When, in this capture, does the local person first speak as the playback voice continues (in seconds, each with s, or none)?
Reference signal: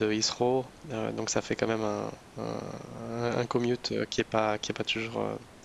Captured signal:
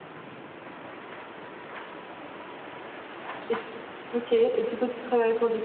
3.5 s